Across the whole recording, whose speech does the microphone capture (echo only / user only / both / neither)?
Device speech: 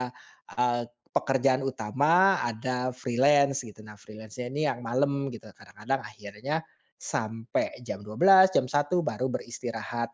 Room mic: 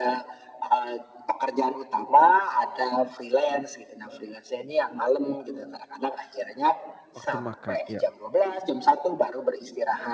both